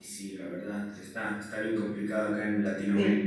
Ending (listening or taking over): listening